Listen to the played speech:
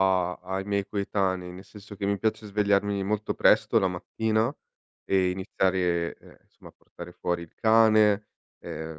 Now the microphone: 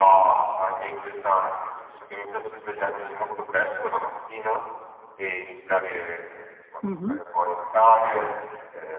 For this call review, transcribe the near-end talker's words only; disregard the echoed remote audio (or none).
Mh-mh.